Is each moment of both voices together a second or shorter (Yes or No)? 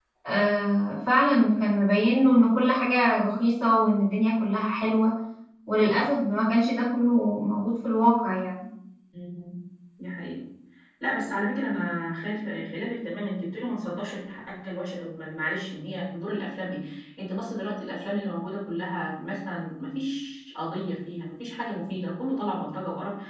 Yes